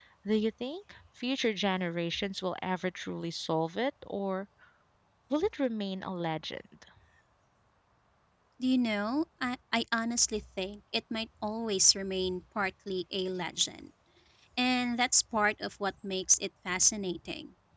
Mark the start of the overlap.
none

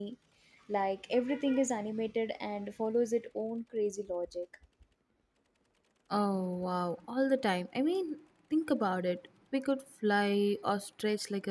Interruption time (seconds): none

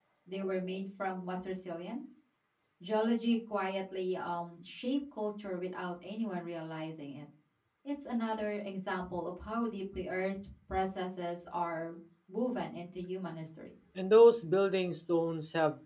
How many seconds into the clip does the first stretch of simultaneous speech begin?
none

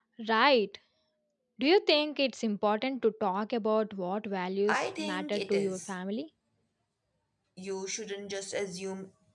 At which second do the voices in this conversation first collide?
4.7 s

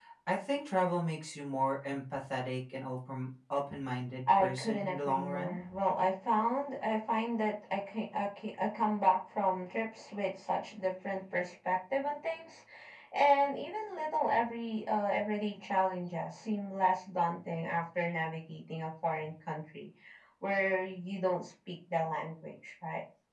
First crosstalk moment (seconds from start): 4.3 s

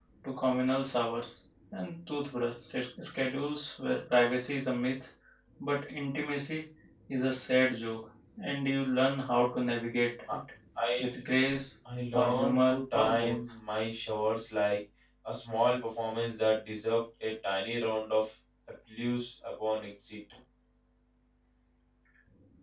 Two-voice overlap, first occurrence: 12.1 s

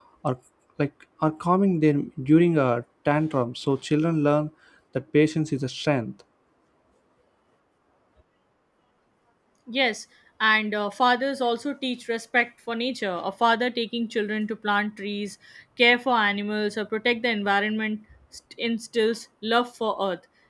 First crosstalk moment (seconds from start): none

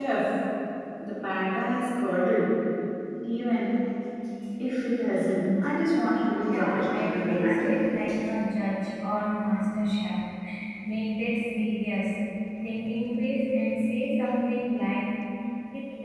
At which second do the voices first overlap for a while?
6.5 s

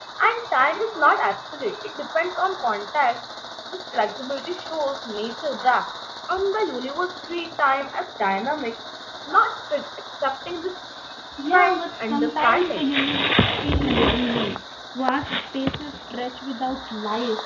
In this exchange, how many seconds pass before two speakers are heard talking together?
11.5 s

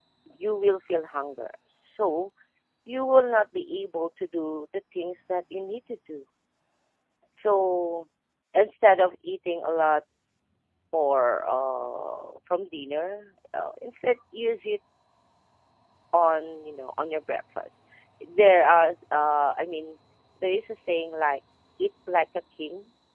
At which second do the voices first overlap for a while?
none

